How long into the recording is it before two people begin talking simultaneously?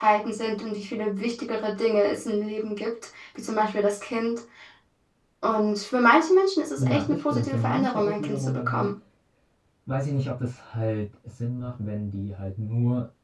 6.8 s

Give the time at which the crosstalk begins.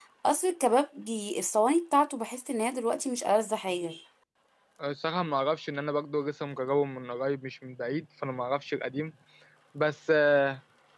none

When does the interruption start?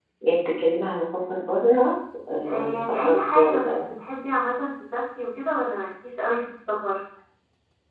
2.5 s

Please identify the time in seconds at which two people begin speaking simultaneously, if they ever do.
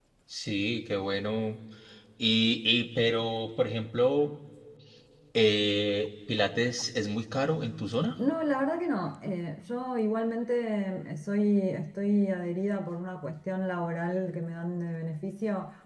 none

